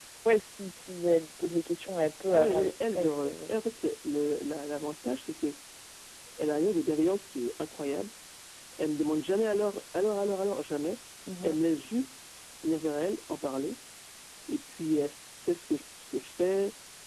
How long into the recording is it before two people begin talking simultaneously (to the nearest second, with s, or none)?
2 s